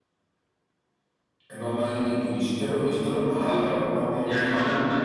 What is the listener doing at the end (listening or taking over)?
taking over